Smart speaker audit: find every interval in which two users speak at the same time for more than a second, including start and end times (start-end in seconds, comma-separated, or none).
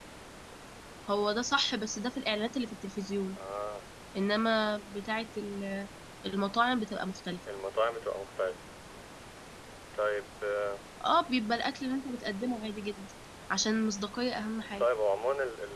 none